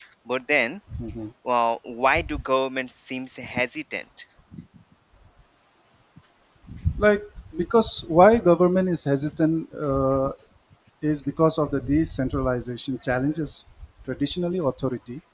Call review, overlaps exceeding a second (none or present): none